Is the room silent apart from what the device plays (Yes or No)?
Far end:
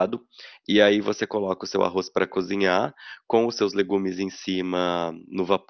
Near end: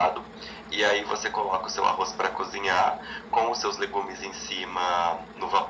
Yes